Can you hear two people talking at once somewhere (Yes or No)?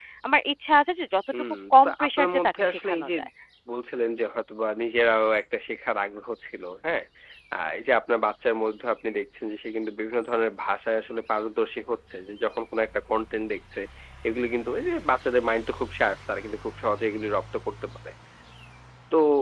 Yes